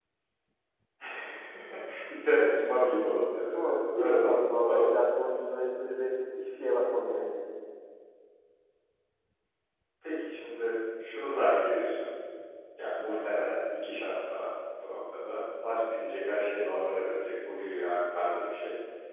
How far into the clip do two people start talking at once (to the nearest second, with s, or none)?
4 s